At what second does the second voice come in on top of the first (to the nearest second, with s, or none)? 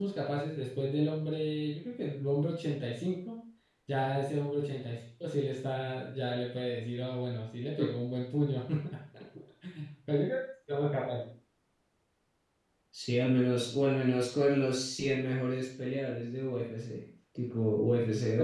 none